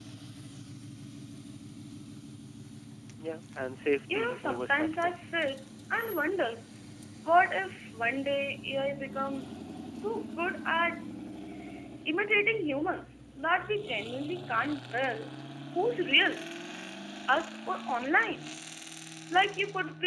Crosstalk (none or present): present